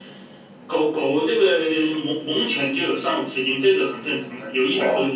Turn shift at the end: Yes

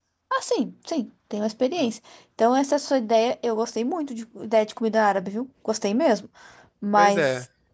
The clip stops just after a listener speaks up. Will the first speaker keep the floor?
Yes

